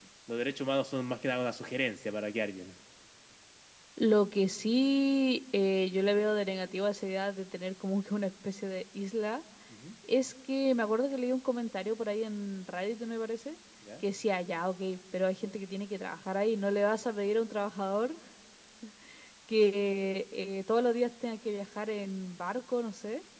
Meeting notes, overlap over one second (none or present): none